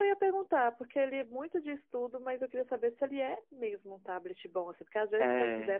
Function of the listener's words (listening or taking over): listening